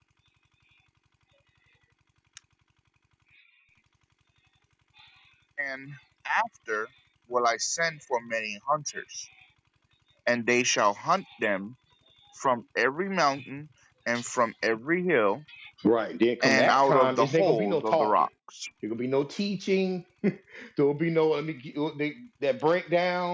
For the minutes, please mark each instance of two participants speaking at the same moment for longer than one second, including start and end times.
16.4-18.3

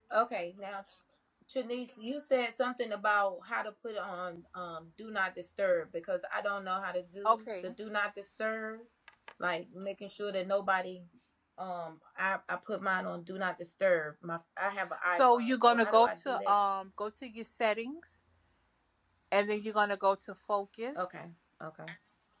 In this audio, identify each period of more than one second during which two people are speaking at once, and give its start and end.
15.1-16.6

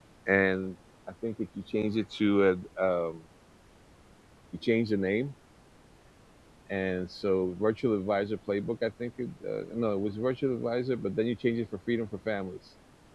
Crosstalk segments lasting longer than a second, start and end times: none

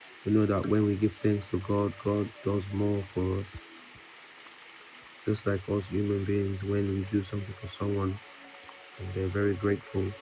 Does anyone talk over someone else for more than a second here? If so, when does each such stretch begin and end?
none

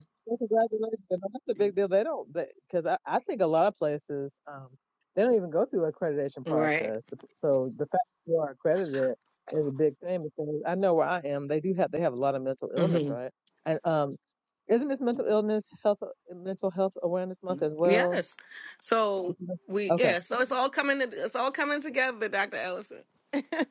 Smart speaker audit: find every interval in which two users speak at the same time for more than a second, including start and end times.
none

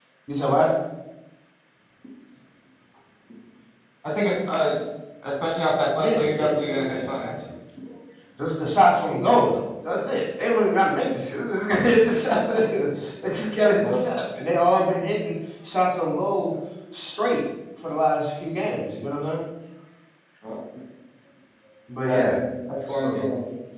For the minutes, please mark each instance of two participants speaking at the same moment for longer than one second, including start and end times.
6.0-7.3

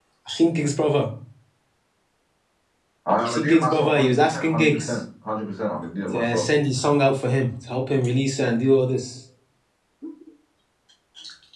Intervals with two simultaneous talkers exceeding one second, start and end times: 3.2-5.0

